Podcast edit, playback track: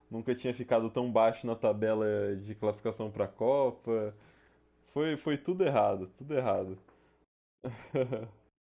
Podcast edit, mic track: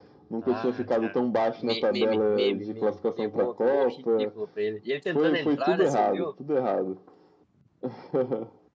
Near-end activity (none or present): present